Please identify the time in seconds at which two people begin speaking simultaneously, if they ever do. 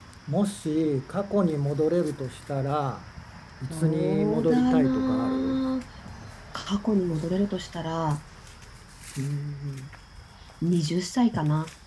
4 s

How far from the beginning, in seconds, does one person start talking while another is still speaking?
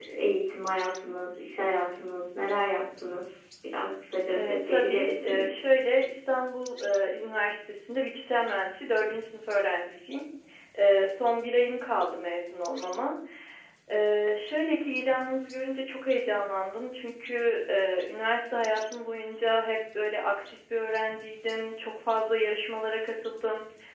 4 s

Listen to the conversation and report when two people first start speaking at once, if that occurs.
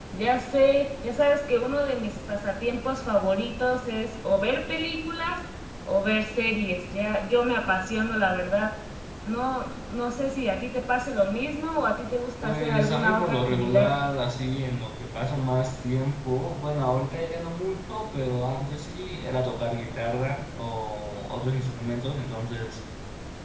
12 s

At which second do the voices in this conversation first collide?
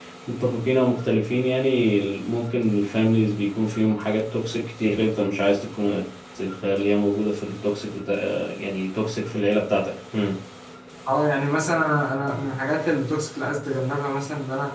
none

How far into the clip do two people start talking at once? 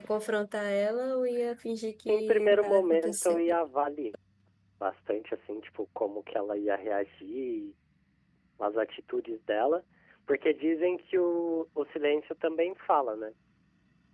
2 s

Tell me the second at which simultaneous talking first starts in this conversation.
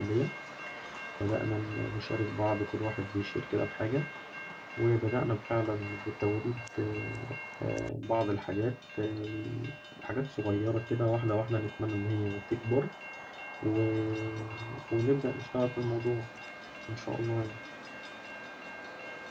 none

